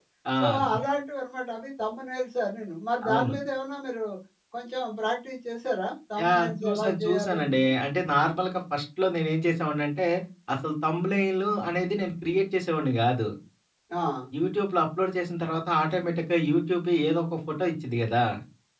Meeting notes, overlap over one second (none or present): present